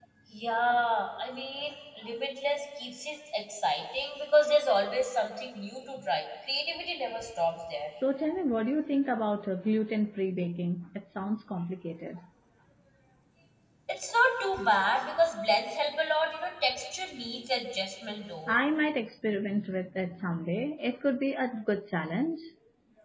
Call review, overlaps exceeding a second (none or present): none